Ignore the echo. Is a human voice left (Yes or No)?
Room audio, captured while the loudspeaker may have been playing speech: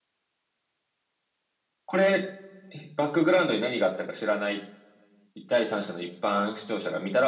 No